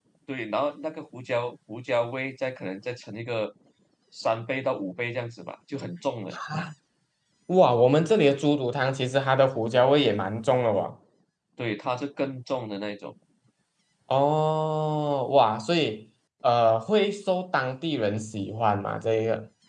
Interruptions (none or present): none